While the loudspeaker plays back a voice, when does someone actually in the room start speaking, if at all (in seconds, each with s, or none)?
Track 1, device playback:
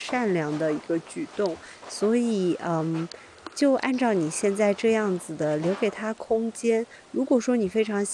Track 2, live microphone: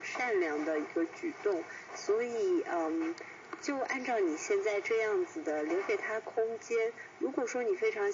none